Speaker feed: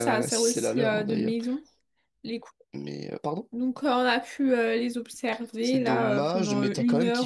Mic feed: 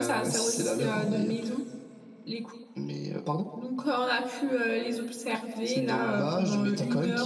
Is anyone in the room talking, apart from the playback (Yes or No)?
No